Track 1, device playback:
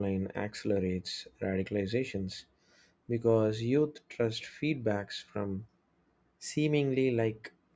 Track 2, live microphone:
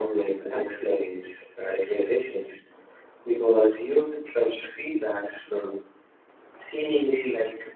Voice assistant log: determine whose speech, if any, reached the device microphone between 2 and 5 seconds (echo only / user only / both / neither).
echo only